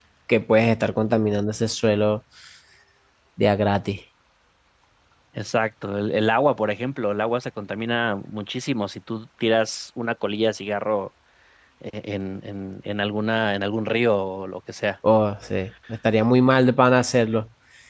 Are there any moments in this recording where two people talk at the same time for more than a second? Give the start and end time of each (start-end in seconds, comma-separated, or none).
none